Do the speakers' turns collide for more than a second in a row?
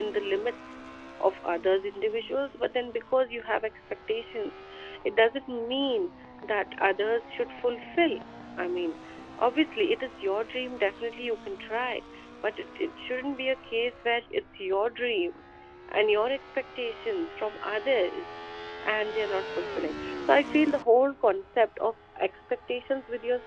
No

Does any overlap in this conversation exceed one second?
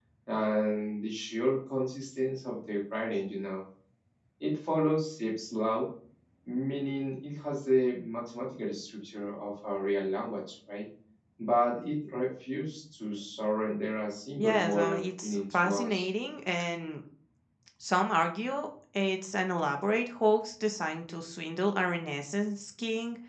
Yes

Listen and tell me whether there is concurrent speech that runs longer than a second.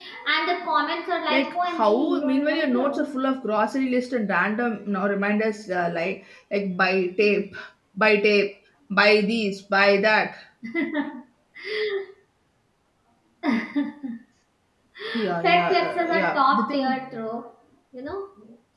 Yes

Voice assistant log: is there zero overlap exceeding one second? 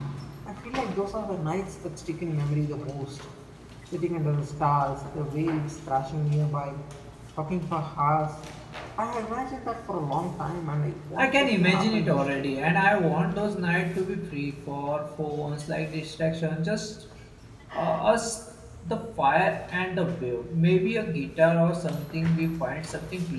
No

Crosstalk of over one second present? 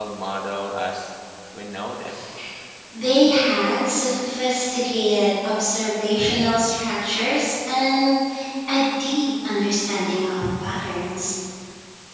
No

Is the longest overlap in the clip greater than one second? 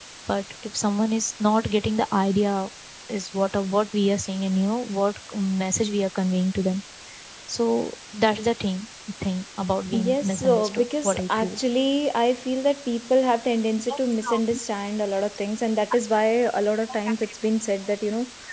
Yes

